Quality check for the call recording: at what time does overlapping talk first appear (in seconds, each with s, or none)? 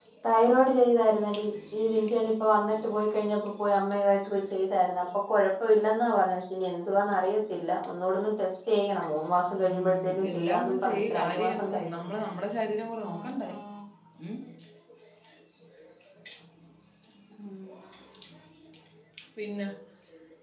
9.6 s